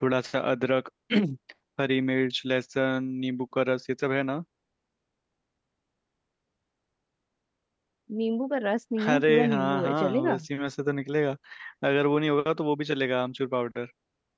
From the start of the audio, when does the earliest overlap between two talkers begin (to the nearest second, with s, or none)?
9 s